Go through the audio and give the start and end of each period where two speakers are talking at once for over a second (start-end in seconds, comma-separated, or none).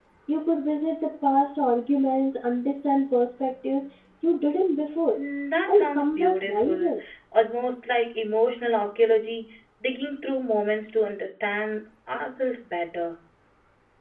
5.7-6.9